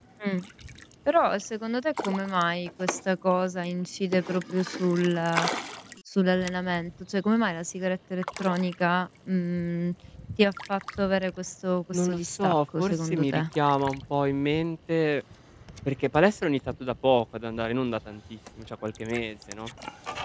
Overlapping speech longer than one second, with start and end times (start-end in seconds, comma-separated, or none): 11.9-13.4